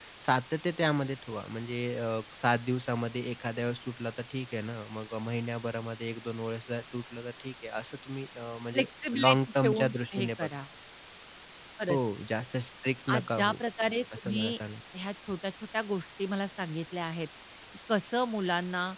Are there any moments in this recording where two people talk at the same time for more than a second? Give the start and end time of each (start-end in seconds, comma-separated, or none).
9.2-10.5